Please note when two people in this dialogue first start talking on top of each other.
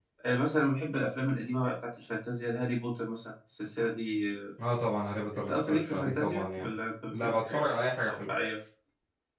5.4 s

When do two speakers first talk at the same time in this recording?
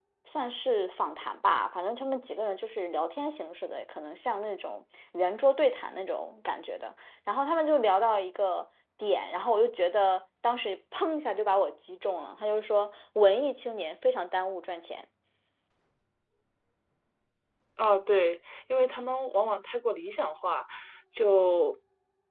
none

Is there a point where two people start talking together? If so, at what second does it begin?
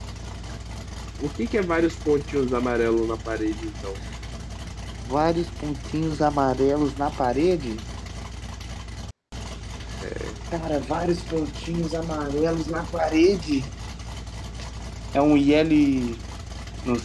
none

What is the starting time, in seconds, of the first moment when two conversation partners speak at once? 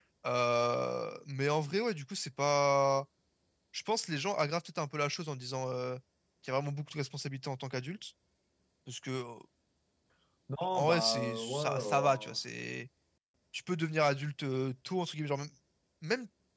10.7 s

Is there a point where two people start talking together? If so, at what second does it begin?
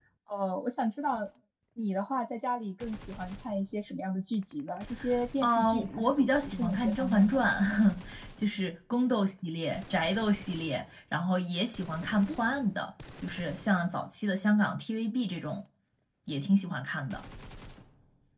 5.4 s

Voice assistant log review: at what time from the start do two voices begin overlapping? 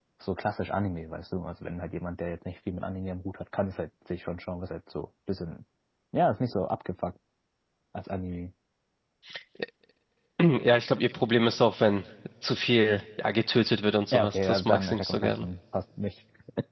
14.1 s

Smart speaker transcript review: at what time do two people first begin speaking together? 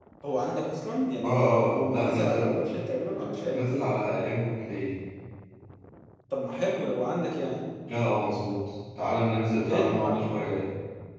1.2 s

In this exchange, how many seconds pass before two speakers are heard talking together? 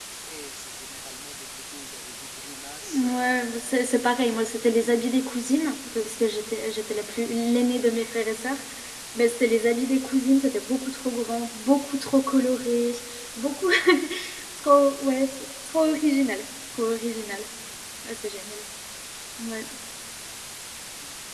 2.9 s

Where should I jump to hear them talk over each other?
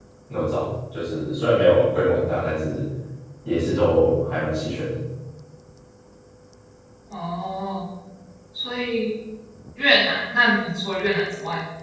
none

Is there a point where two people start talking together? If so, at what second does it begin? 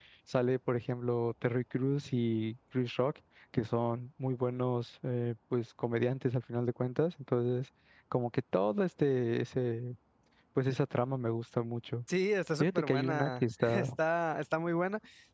12.6 s

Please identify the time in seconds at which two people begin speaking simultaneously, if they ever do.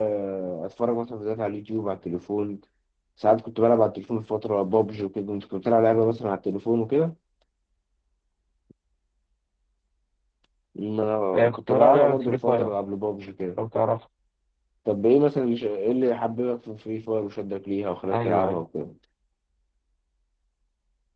11.3 s

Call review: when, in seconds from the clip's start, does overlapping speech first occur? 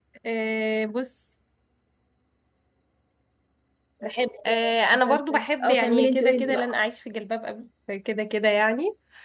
4.4 s

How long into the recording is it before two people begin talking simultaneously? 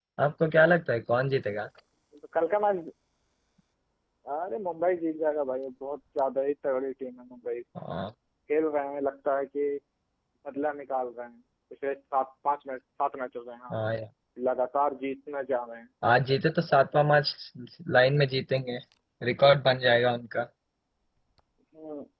none

